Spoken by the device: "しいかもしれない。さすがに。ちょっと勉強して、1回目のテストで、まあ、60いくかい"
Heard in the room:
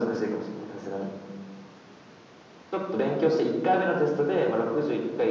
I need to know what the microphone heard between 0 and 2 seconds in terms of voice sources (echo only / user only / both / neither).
echo only